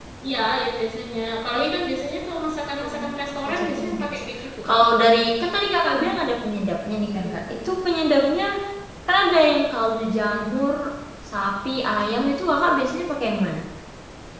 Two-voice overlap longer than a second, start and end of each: 2.8-4.2

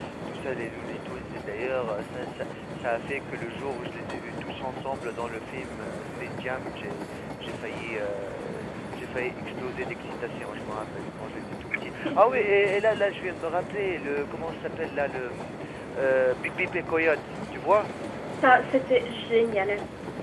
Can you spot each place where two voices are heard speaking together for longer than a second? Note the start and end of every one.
none

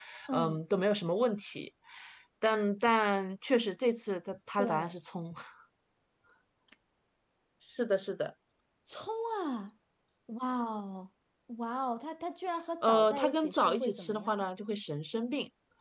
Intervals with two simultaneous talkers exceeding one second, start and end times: 12.8-14.4

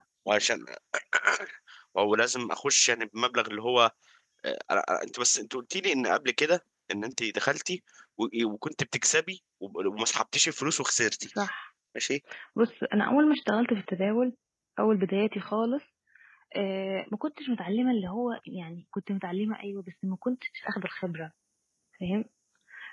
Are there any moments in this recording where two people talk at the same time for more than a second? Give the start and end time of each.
none

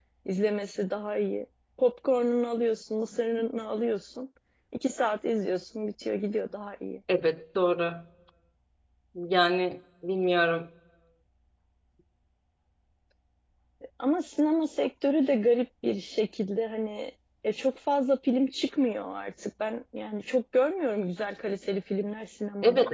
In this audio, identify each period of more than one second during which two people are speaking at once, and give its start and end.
none

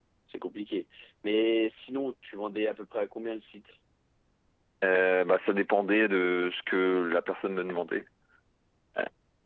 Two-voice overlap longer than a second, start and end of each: none

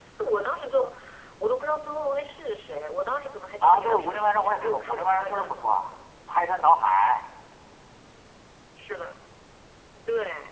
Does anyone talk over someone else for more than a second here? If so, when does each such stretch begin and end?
3.6-5.6

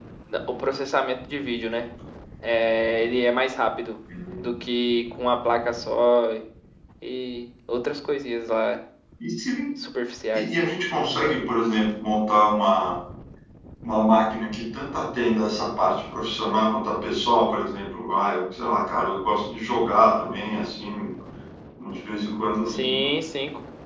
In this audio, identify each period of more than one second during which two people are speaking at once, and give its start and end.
none

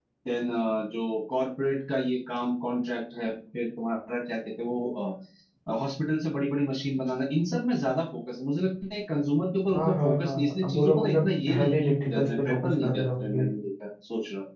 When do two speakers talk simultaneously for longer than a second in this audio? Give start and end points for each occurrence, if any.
9.7-13.5

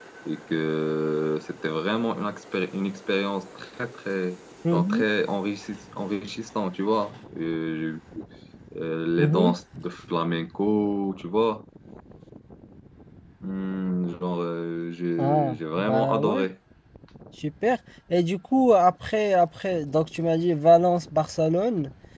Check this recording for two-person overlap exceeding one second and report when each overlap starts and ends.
15.2-16.4

